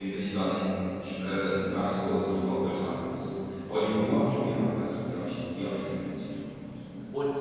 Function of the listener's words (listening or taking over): taking over